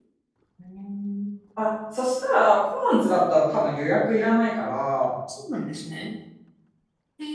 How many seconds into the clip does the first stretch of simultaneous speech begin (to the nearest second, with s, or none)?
none